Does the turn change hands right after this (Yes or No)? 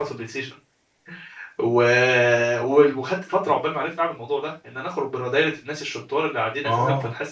No